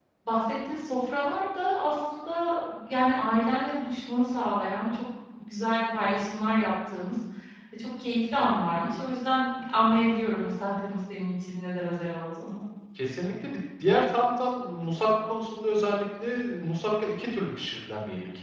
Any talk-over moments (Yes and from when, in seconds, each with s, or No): No